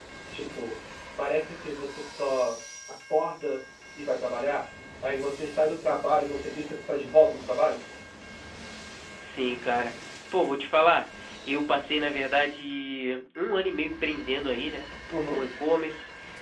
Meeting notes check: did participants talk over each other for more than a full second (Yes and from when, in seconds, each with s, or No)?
No